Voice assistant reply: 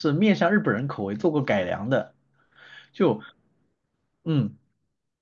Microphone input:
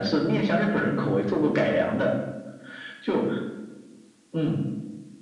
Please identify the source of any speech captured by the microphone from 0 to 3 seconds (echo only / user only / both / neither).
echo only